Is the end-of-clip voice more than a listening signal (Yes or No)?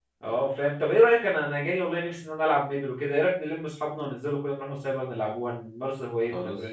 Yes